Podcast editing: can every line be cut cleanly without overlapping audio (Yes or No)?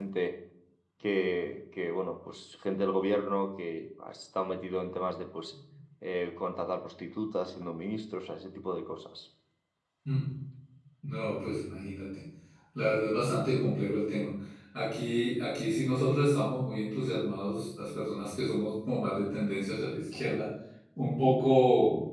Yes